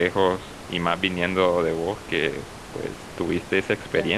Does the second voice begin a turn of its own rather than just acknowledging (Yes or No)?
Yes